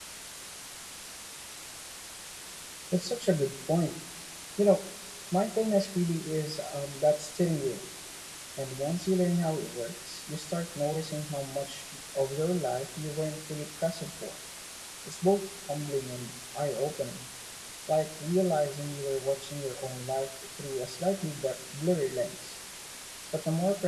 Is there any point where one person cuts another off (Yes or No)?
No